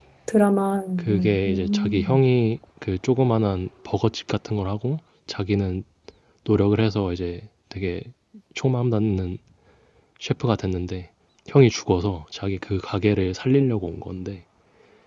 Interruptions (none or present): present